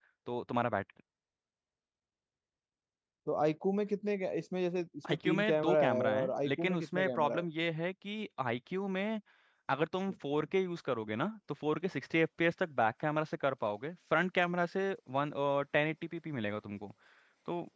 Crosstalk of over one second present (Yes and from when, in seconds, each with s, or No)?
Yes, from 5.1 s